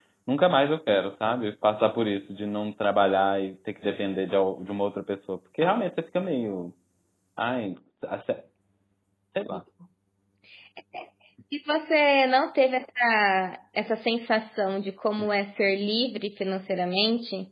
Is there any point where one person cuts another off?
No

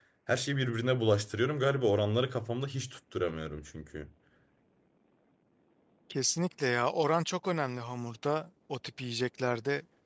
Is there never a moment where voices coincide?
Yes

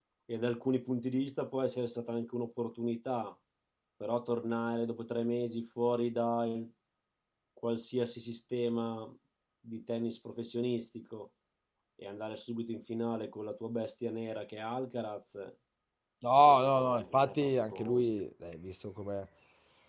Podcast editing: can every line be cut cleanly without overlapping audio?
No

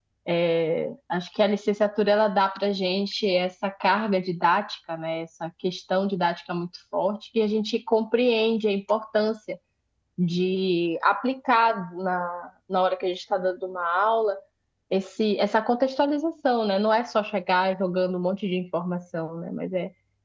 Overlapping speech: No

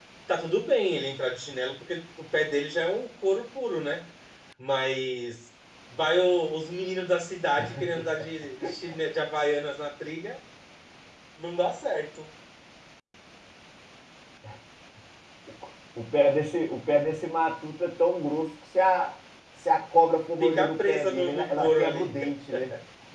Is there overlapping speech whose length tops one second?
Yes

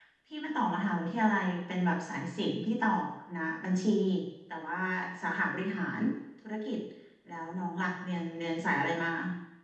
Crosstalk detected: No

